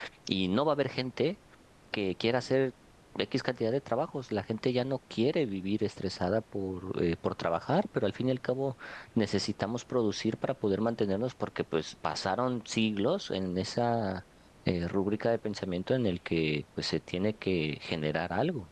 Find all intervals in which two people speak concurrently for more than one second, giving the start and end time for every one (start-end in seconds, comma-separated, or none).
none